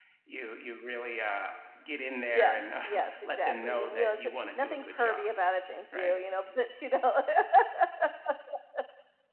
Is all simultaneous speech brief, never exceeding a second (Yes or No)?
No